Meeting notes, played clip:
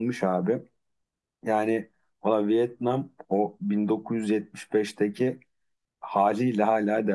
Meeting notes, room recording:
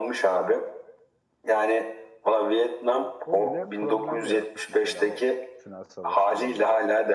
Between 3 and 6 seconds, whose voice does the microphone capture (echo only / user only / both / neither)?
both